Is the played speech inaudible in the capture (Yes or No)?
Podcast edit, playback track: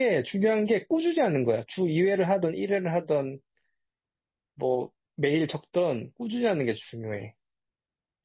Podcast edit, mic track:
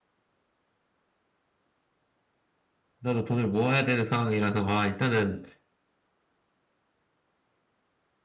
Yes